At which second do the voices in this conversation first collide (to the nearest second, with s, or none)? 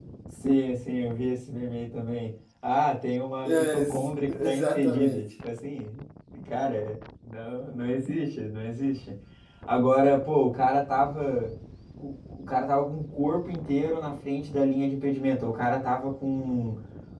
3 s